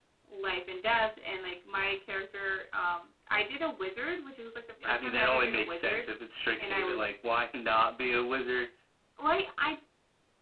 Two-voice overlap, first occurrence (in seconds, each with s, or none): 4.8 s